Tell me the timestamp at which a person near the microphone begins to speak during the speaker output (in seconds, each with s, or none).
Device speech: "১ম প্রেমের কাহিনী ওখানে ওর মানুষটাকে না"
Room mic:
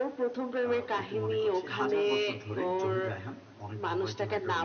0.7 s